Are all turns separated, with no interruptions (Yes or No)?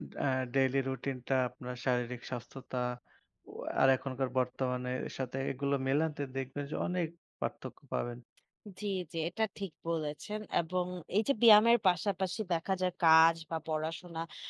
Yes